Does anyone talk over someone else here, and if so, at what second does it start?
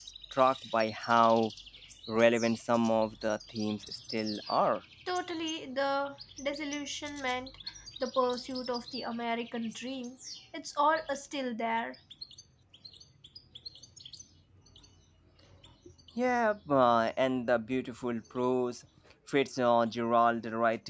none

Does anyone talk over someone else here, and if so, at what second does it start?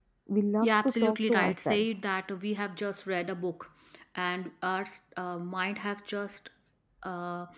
0.6 s

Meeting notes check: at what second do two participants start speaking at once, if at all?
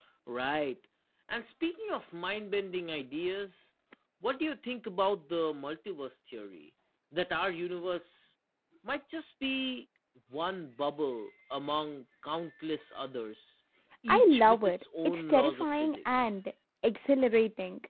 14.1 s

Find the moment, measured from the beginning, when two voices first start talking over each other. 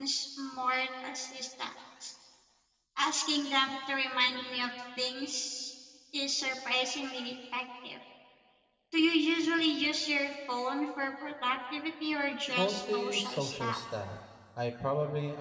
12.6 s

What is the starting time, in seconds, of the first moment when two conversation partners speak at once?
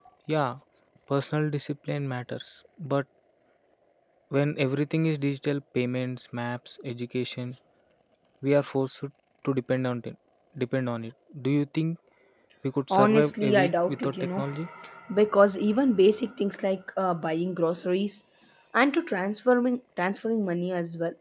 12.9 s

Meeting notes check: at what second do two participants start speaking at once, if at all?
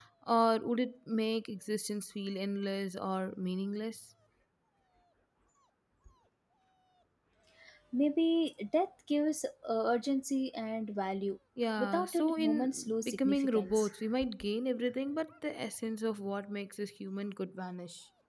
11.8 s

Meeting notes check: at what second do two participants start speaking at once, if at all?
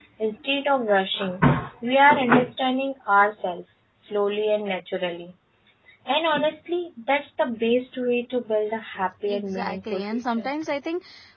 9.3 s

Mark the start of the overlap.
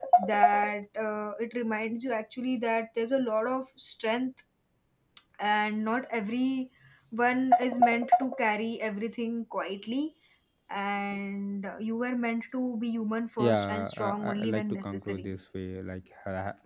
13.4 s

